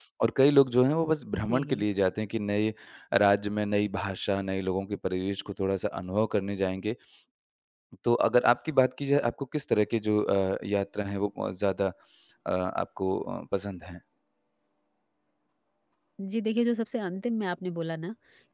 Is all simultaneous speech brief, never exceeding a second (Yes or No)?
Yes